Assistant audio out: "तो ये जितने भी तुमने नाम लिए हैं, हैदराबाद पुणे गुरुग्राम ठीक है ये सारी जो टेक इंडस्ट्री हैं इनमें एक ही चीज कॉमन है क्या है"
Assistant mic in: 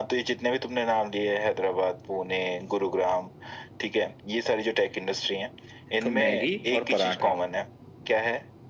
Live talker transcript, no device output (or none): तो मैगी और पराठा